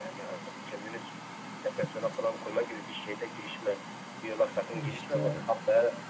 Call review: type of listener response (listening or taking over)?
listening